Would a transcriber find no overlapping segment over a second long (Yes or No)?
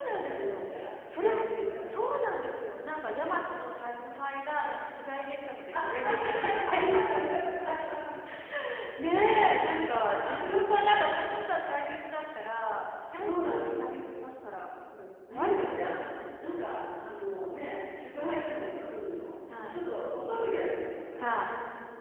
No